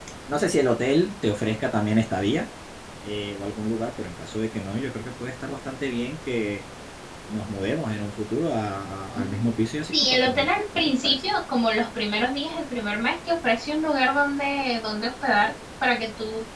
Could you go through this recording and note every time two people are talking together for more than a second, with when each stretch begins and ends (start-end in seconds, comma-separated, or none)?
9.9-11.3